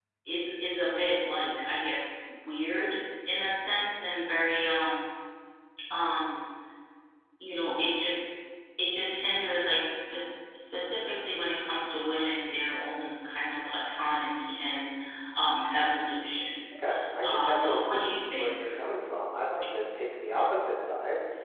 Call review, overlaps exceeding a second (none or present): present